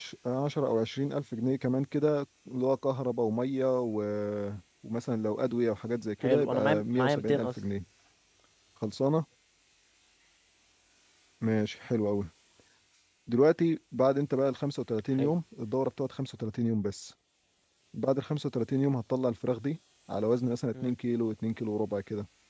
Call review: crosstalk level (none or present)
present